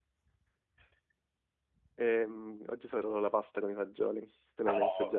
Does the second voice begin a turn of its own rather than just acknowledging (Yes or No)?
Yes